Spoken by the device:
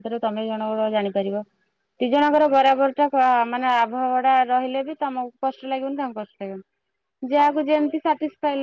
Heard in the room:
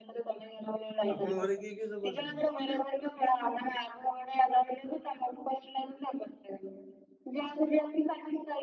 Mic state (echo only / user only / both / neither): both